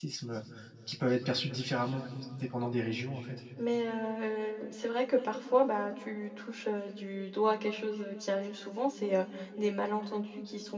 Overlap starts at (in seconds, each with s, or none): none